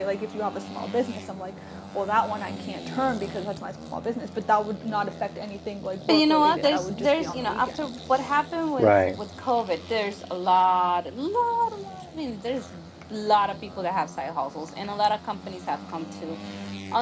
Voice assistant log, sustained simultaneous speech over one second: present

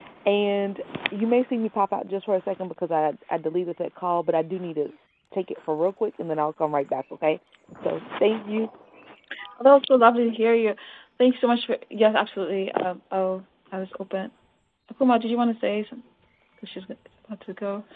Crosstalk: none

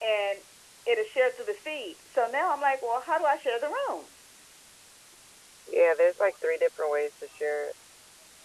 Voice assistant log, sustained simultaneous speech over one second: none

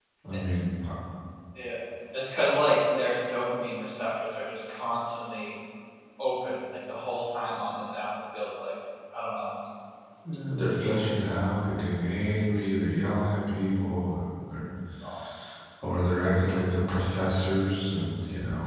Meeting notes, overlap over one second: none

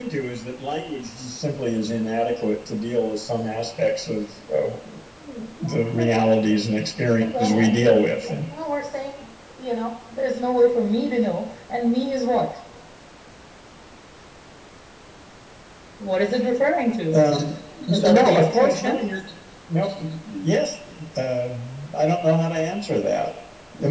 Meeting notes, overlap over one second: present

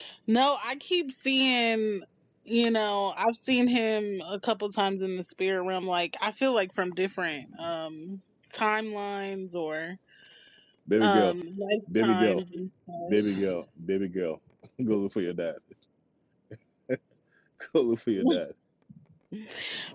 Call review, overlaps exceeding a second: none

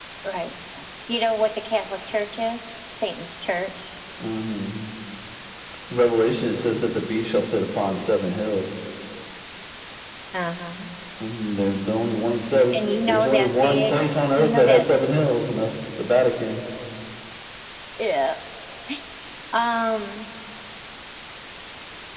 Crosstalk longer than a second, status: present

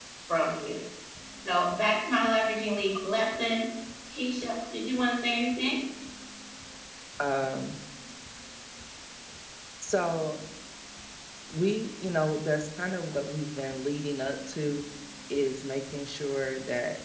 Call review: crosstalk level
none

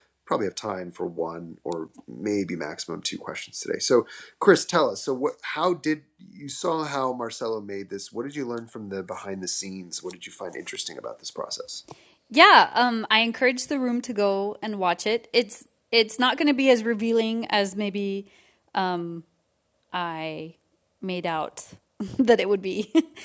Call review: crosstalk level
none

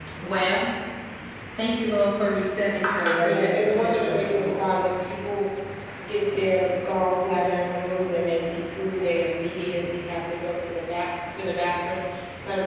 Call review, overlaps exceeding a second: present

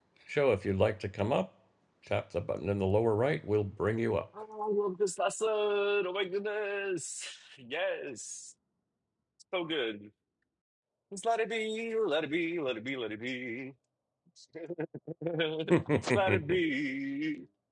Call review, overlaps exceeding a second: none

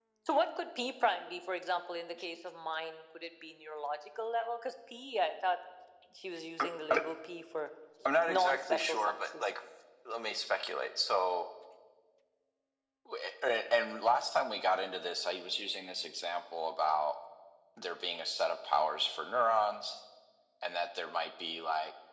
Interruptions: present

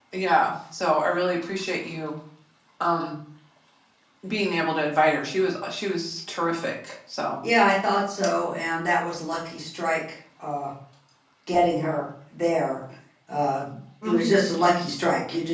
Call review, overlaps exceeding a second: none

